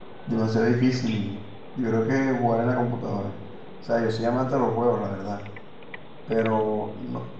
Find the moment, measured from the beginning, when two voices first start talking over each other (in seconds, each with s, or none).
none